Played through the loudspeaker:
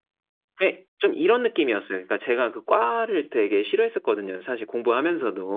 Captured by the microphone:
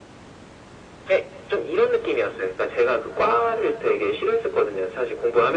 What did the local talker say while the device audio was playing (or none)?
none